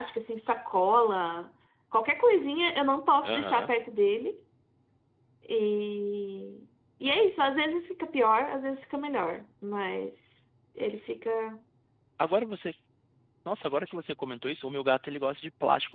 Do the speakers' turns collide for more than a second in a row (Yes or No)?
No